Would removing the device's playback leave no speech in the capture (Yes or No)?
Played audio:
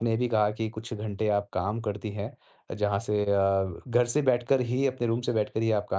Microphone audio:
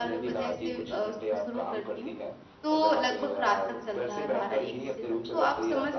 No